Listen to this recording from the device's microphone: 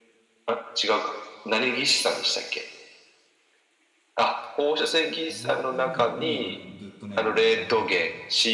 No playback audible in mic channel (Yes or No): No